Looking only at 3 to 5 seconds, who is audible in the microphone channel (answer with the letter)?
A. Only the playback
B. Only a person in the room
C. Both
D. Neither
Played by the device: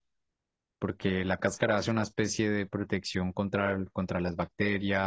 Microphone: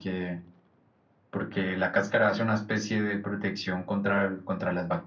A